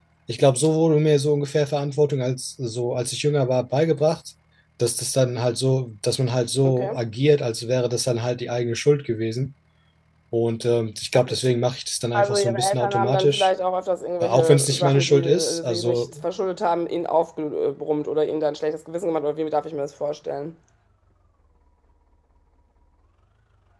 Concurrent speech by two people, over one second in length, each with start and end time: 12.1-13.5, 14.2-16.0

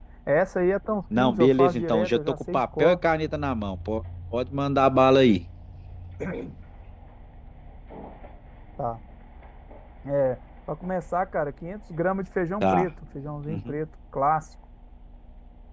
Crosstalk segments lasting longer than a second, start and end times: 1.2-3.0

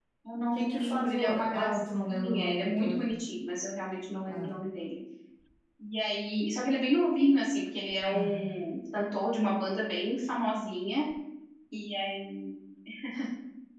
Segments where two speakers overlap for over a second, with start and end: 0.5-3.1

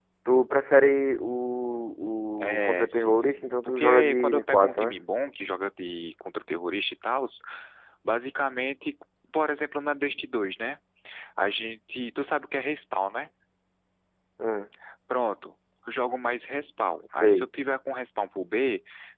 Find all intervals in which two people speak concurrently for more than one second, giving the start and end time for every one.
2.4-5.0

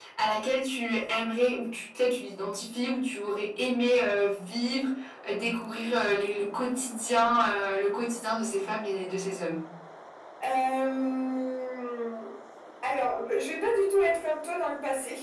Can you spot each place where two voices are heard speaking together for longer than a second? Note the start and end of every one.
none

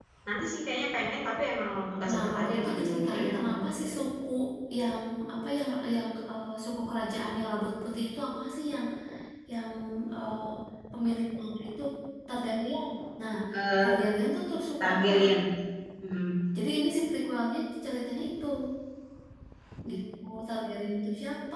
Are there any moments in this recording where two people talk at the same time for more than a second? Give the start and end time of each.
2.1-3.6

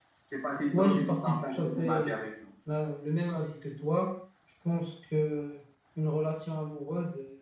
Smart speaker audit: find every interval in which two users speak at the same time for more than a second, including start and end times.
0.7-2.2

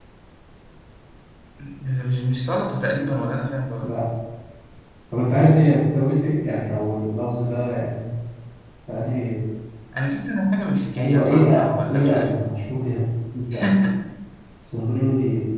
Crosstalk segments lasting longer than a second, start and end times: 11.0-12.3

